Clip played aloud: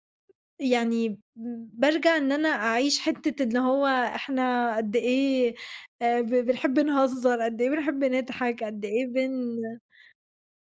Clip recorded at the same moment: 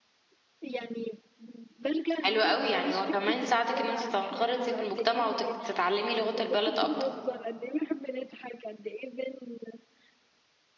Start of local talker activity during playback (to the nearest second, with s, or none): 2 s